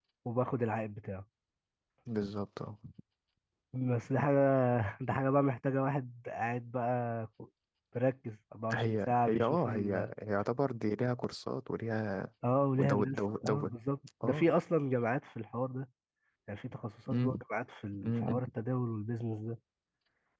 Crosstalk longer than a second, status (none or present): present